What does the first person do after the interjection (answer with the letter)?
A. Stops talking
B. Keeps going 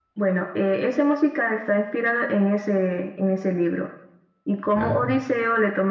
B